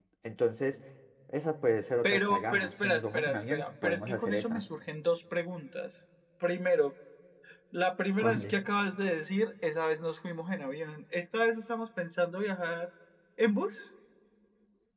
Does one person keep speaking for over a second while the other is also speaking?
Yes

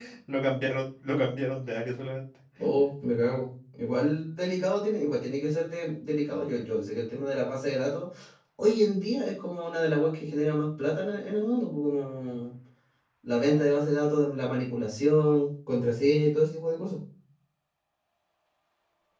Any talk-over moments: No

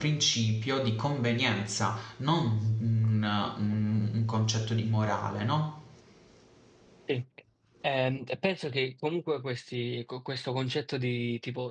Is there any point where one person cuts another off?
No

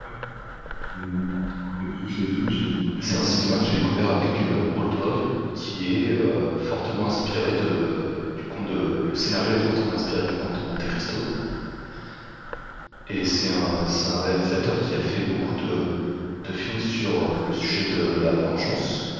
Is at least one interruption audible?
Yes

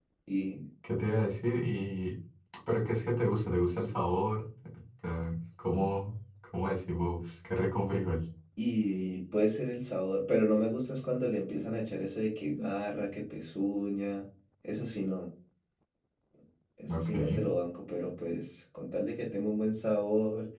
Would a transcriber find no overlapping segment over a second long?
Yes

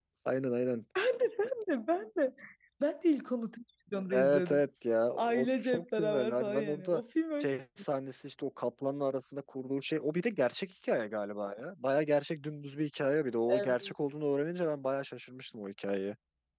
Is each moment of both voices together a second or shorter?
No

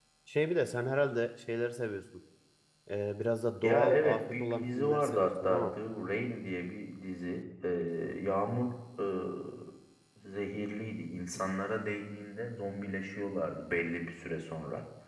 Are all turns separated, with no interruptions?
No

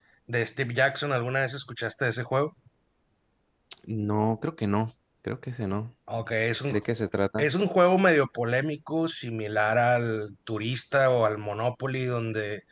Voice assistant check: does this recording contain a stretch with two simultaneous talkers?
No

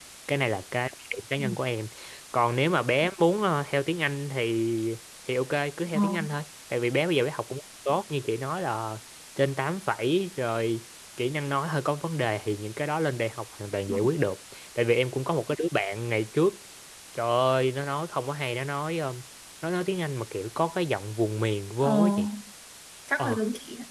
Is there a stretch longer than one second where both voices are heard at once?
No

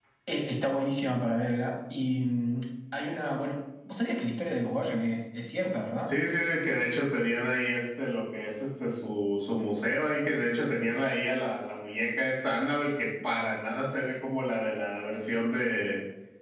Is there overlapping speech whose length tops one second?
No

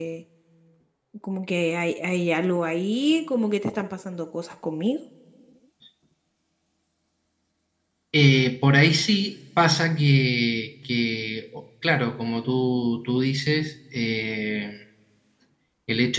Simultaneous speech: No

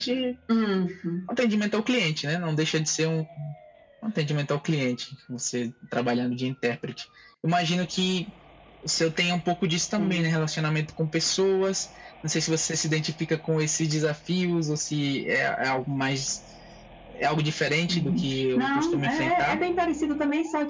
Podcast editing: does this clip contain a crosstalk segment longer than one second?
Yes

